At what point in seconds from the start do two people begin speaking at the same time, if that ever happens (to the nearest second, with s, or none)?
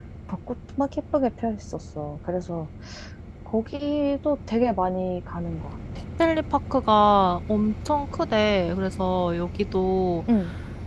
none